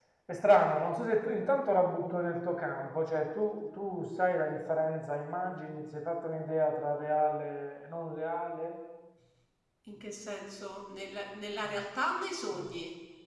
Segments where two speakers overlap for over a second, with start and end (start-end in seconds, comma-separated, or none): none